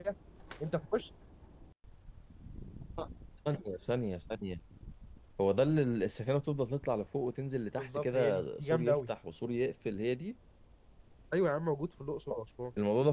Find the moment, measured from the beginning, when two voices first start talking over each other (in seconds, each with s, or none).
7.8 s